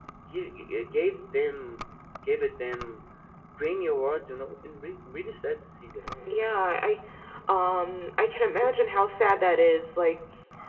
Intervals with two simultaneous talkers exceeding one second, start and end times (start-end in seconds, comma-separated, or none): none